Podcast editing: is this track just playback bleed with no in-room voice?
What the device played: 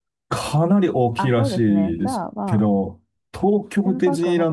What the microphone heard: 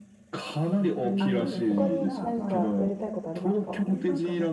No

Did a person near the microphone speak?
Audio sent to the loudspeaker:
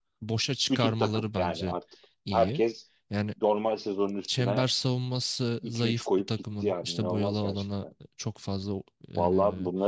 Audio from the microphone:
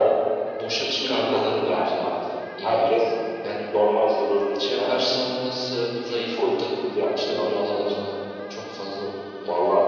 No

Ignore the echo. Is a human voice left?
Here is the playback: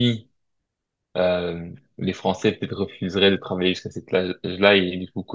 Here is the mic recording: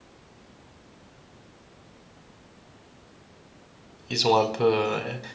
Yes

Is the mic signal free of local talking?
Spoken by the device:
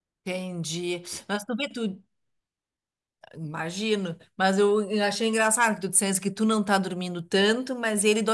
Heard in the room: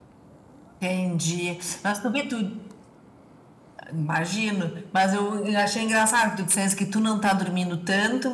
Yes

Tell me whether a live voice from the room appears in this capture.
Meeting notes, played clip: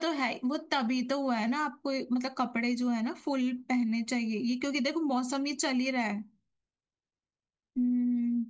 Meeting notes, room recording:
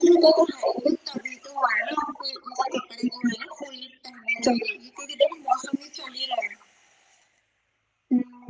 No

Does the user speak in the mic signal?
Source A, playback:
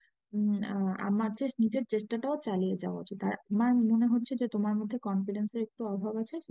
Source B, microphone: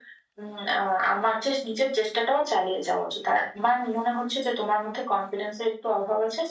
No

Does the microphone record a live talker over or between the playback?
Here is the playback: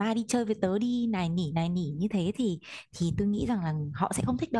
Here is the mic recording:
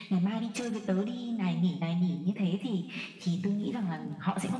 No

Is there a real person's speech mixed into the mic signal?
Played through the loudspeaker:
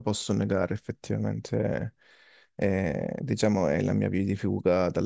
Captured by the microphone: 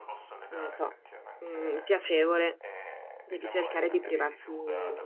Yes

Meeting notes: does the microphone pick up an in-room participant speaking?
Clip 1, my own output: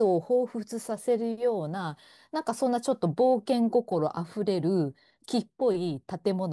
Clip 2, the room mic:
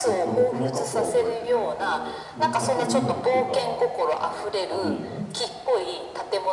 Yes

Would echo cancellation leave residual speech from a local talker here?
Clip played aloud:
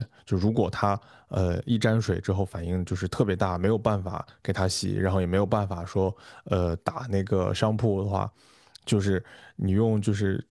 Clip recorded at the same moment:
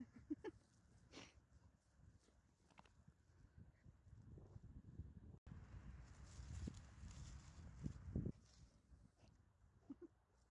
No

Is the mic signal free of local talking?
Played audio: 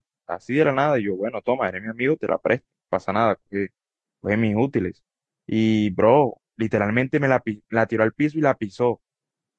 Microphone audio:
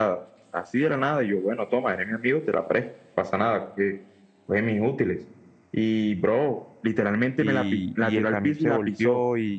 No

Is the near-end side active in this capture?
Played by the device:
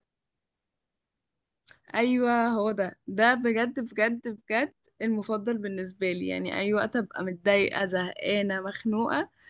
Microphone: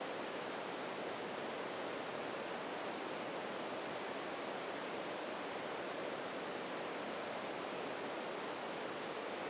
No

